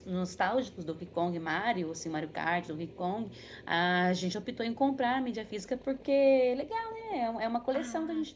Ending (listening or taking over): taking over